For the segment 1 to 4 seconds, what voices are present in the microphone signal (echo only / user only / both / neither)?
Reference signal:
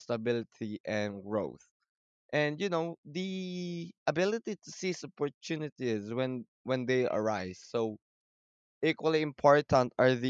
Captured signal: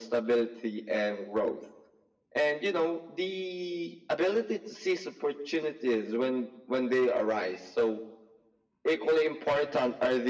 echo only